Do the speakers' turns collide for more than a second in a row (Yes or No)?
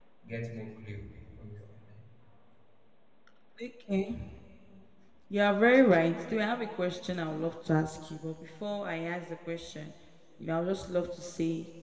No